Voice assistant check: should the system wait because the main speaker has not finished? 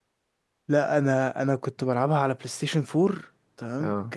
Yes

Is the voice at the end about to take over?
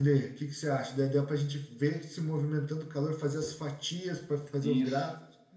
Yes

